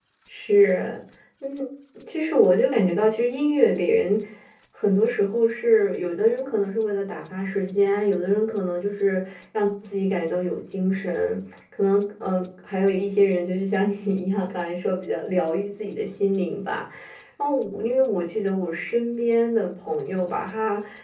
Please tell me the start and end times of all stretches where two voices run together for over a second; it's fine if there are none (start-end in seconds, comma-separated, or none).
none